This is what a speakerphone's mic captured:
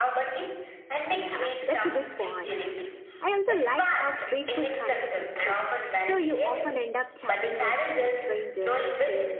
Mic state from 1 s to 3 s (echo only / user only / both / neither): both